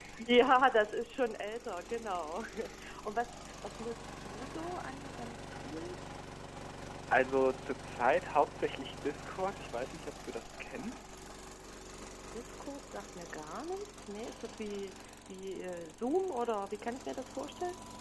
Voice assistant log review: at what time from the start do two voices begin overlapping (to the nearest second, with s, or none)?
none